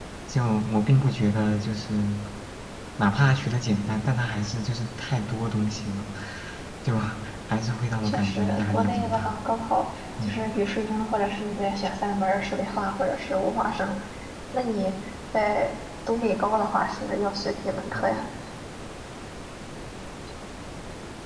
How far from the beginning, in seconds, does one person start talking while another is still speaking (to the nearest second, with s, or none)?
8 s